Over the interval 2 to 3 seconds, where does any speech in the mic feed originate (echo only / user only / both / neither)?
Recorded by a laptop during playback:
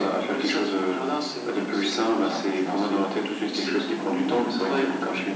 echo only